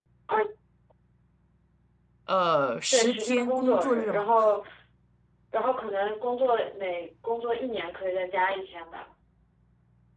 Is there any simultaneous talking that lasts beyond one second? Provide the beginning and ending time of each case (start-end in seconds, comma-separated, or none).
2.9-4.3